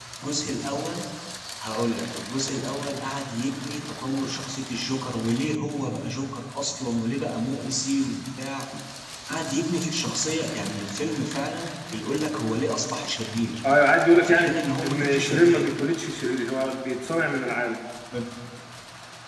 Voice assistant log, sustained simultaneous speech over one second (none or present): present